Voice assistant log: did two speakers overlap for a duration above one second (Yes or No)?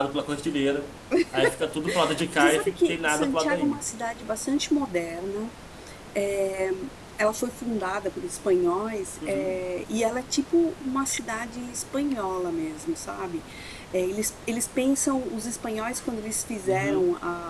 Yes